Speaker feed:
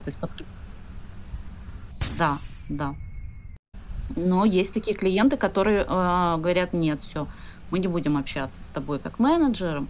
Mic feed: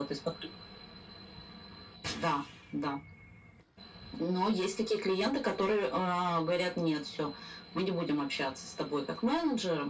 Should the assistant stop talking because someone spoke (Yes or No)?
No